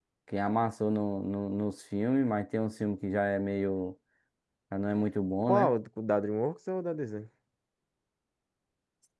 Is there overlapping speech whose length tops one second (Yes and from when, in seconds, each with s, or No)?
No